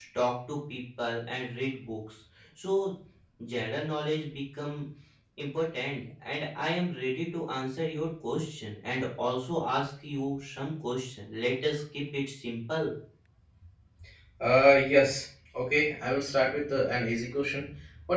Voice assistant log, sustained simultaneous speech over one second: none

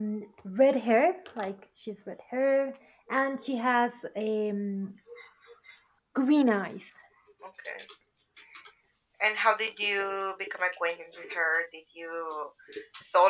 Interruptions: none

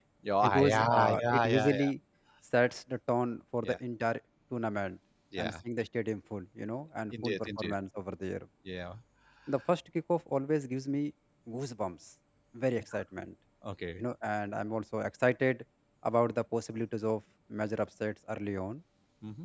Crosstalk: present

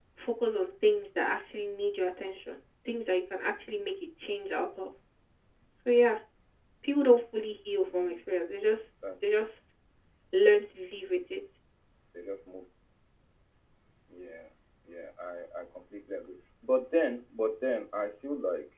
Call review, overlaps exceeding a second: none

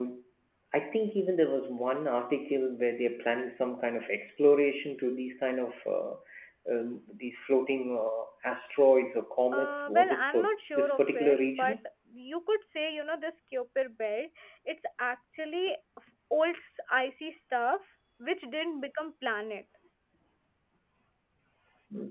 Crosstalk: present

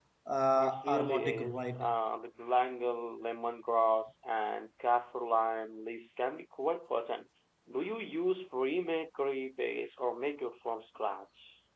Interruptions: present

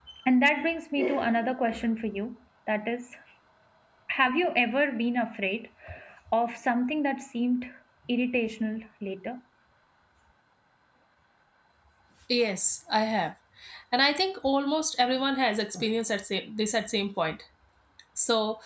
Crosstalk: none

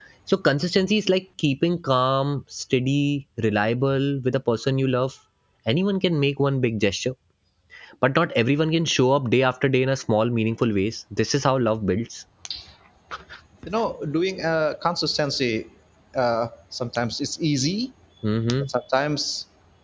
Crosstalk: none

